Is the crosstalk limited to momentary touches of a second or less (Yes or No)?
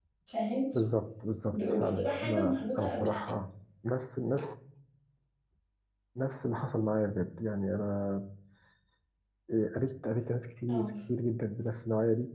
No